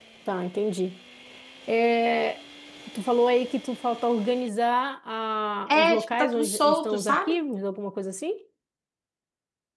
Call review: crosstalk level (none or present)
present